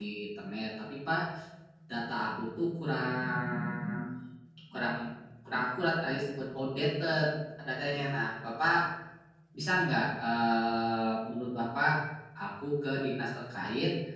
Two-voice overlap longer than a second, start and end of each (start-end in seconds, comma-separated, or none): none